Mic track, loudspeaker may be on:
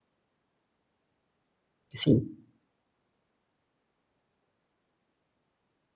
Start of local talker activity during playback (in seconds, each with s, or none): 1.9 s